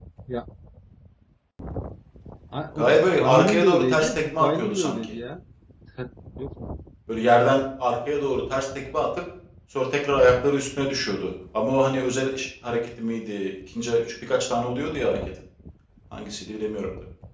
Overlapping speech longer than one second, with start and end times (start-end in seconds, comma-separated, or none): 2.8-5.1